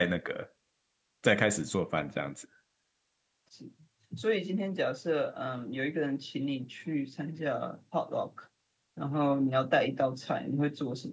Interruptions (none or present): none